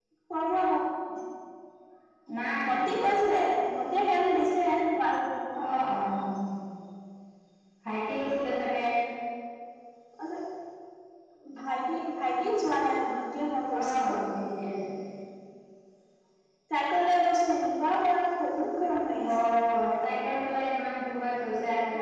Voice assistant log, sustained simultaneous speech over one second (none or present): none